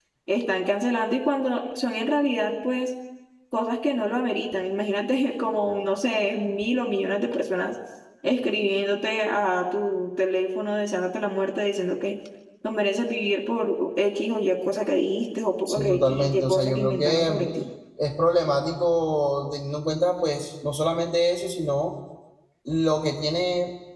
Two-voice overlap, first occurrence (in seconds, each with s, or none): 15.7 s